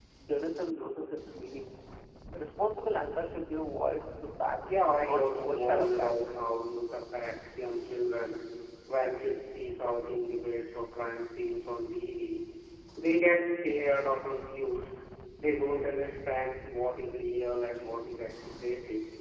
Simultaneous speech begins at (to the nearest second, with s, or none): 5 s